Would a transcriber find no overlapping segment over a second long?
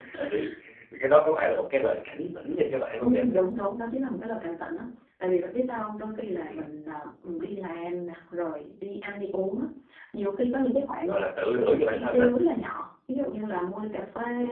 Yes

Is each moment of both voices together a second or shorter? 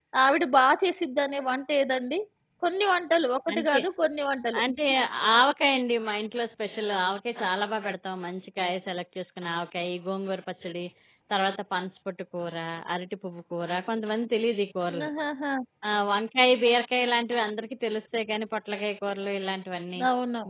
Yes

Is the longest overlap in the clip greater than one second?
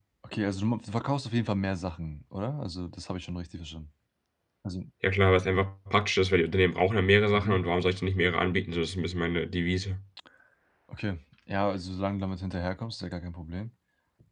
No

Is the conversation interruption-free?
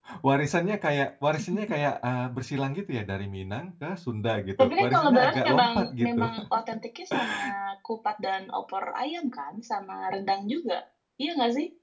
No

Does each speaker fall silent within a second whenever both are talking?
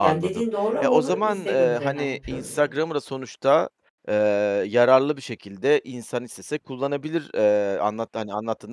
No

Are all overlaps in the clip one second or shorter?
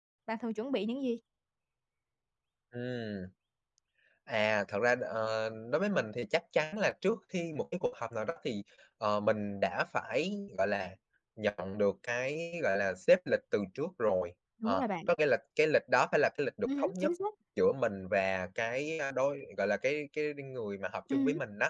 Yes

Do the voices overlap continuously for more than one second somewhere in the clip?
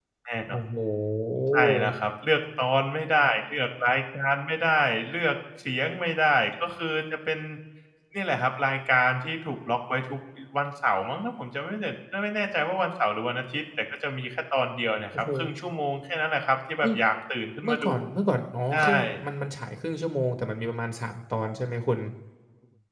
No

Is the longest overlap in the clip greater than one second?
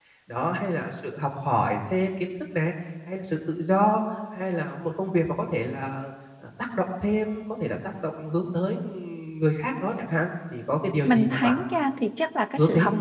Yes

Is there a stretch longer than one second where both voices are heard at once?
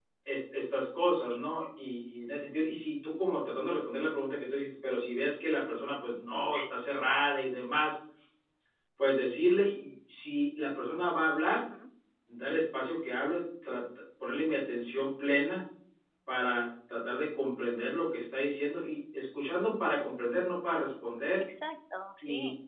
No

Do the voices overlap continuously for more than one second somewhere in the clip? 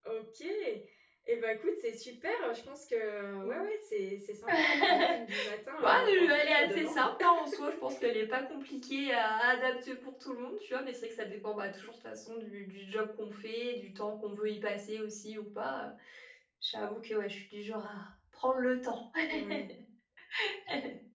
Yes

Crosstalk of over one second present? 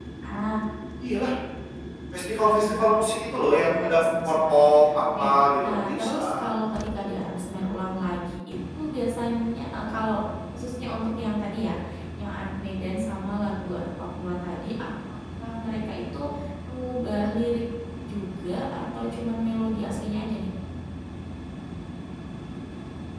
Yes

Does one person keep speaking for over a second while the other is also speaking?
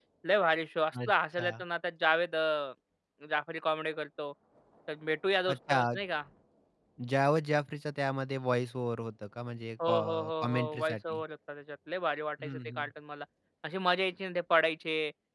Yes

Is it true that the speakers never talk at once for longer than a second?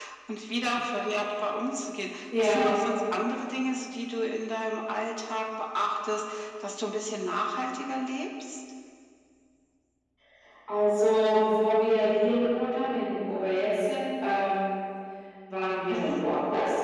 Yes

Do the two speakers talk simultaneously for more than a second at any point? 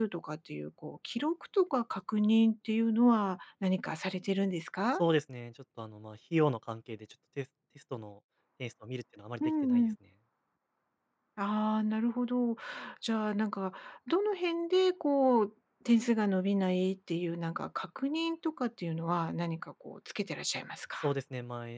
No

